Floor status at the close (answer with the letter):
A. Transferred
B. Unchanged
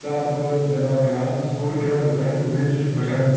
B